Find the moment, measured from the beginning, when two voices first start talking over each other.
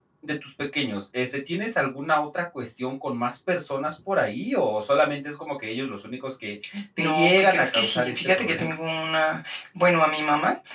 7.0 s

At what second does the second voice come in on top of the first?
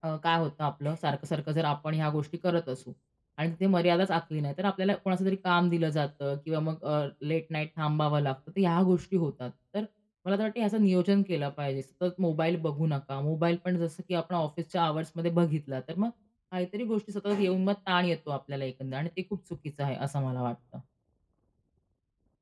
none

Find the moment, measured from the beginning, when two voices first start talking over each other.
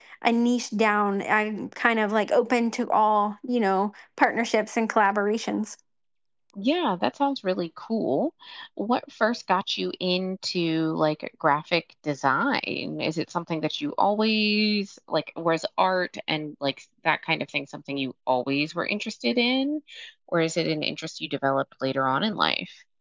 none

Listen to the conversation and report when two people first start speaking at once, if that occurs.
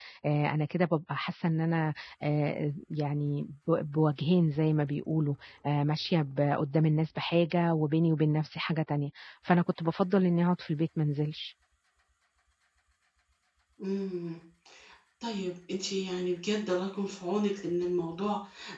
none

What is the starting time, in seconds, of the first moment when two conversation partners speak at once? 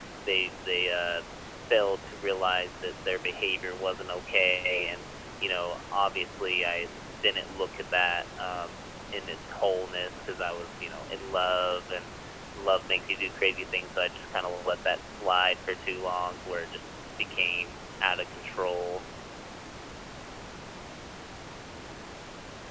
none

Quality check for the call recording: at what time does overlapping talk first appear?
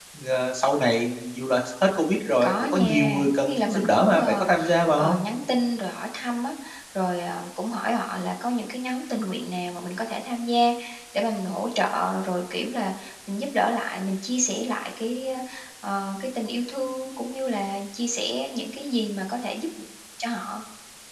2.3 s

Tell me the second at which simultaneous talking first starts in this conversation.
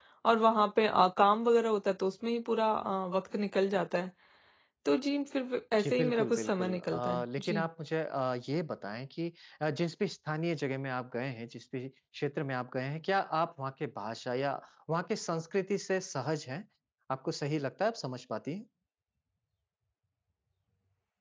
5.8 s

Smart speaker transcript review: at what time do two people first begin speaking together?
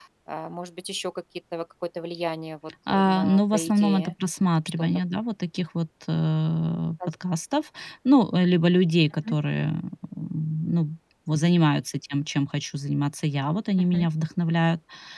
2.9 s

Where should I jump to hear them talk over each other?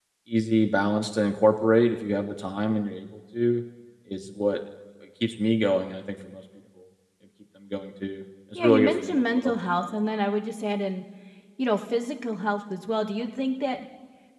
8.6 s

